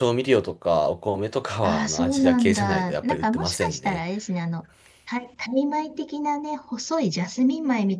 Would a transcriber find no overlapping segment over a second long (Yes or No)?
No